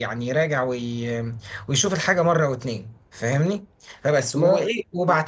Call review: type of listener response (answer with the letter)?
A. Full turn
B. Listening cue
B